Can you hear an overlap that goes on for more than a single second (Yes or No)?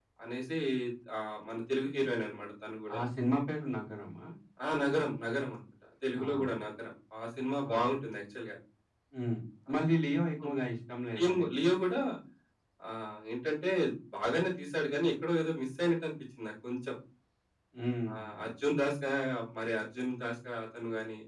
No